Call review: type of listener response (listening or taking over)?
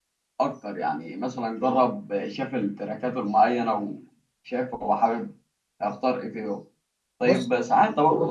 listening